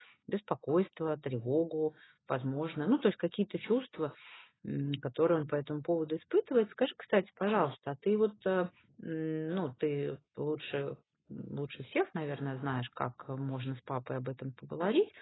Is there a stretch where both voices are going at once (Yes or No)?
No